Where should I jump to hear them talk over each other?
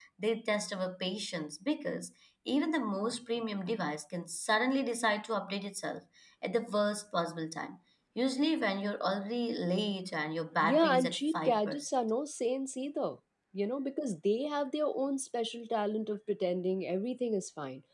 10.6 s

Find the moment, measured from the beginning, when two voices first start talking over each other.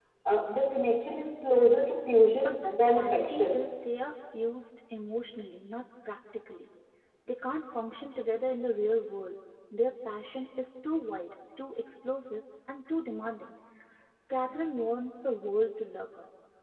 2.3 s

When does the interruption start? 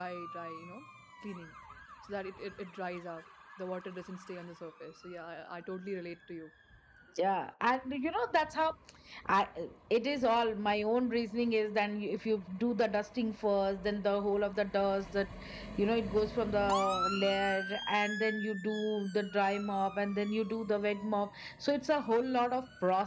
none

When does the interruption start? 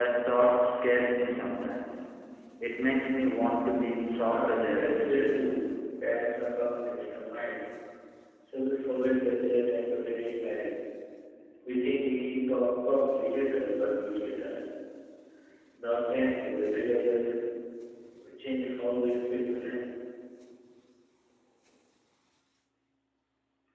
4.3 s

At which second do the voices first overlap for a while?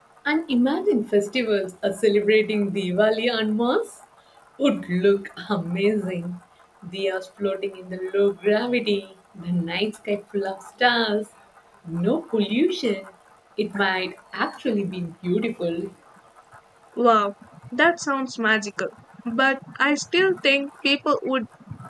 none

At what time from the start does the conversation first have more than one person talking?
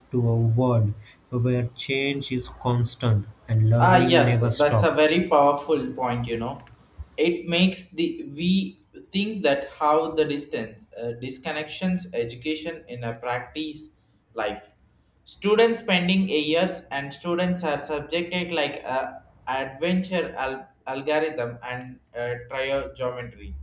3.8 s

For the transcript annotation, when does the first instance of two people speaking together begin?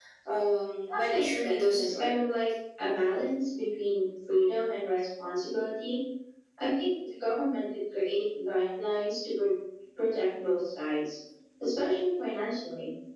0.9 s

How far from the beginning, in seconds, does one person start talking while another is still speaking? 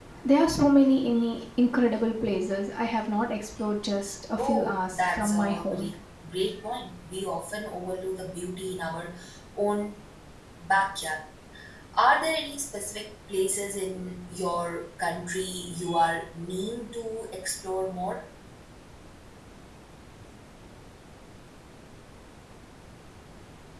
4.4 s

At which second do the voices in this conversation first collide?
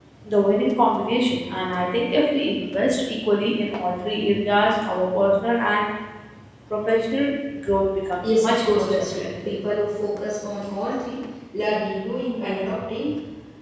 8.2 s

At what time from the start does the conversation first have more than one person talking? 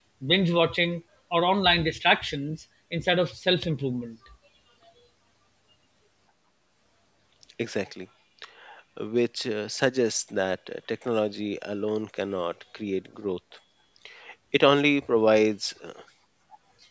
none

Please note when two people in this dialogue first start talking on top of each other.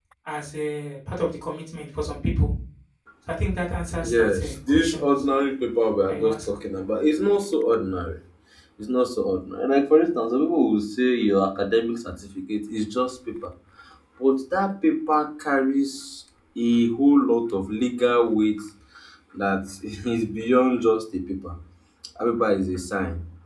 4.0 s

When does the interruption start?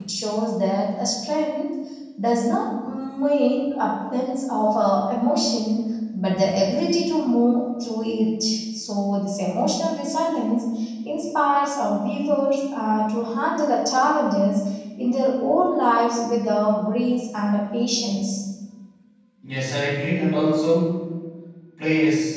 none

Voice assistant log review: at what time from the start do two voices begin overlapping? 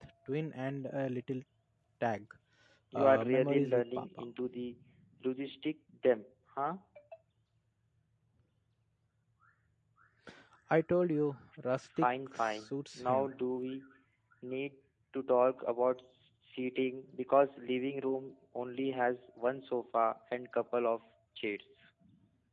2.9 s

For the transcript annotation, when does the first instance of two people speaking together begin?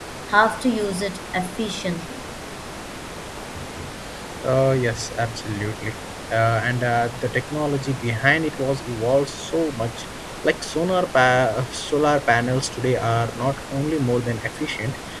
none

